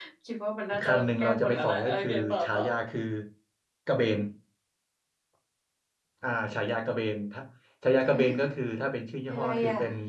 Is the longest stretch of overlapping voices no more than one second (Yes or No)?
No